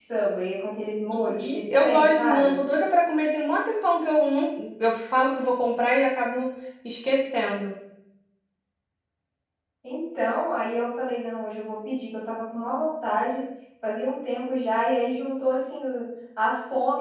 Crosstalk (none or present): present